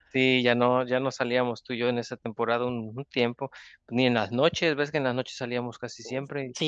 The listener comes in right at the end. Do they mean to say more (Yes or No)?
Yes